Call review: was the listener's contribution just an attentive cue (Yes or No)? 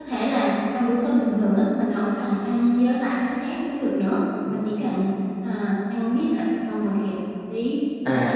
No